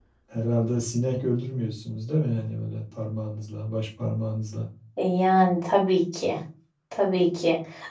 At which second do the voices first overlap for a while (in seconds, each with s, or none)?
none